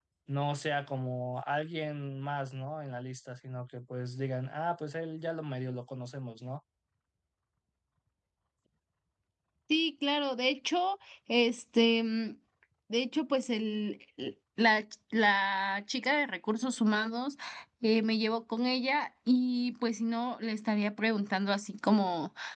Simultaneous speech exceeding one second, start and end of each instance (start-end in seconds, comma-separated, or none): none